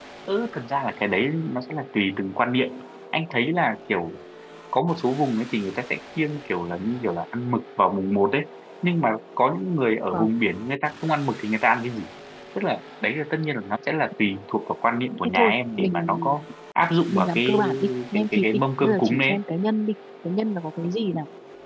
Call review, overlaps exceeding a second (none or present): present